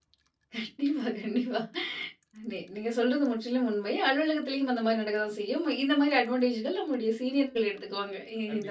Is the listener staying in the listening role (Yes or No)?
No